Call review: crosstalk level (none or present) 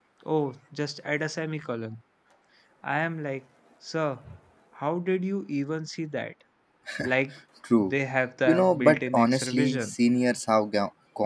present